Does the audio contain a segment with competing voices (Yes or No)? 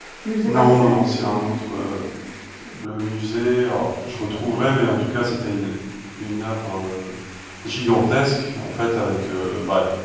Yes